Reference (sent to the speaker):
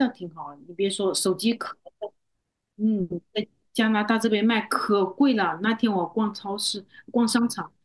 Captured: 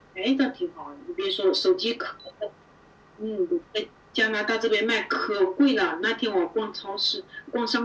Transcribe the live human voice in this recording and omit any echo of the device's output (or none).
none